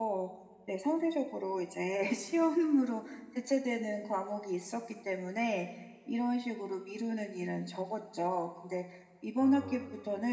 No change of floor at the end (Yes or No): Yes